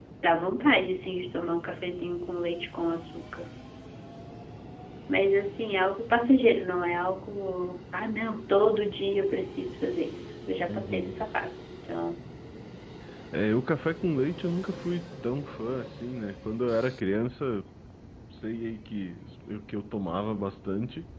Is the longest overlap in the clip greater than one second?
No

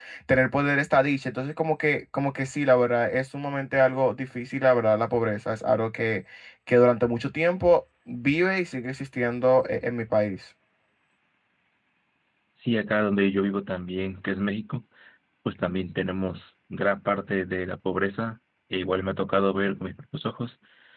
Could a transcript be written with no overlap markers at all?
Yes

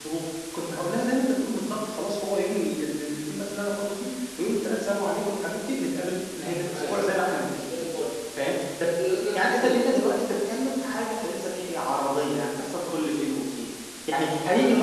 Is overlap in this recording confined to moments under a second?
Yes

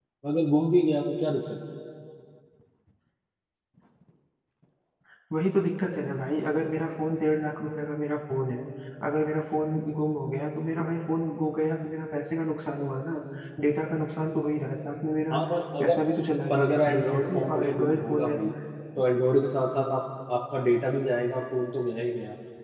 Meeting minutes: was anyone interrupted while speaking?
Yes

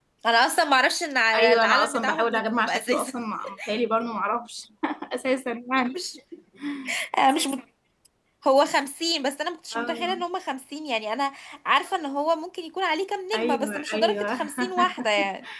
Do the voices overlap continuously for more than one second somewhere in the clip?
Yes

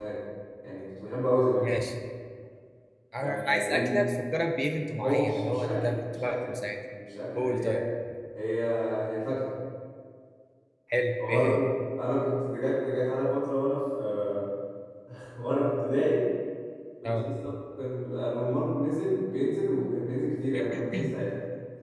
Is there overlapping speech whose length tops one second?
Yes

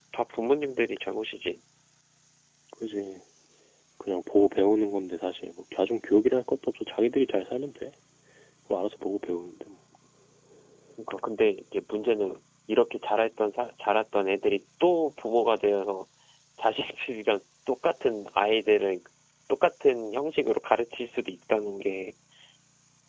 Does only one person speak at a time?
Yes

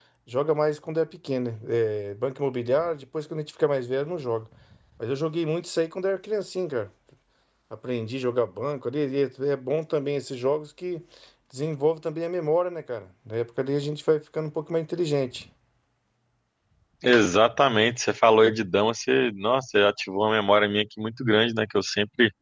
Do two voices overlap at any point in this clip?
No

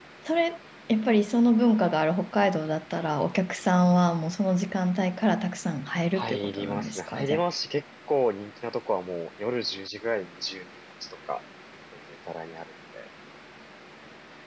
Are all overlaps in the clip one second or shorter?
No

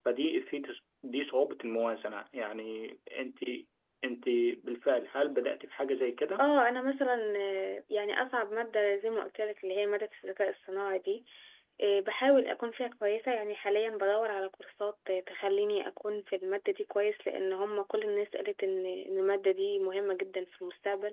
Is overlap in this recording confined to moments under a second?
Yes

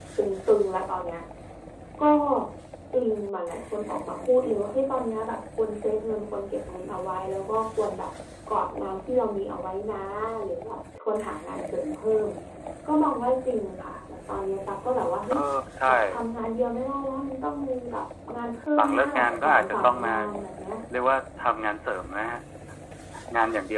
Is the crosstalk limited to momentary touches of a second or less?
No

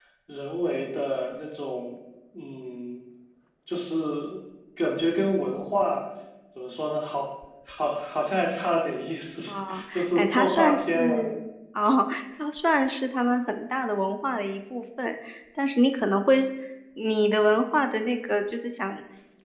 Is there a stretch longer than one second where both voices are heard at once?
Yes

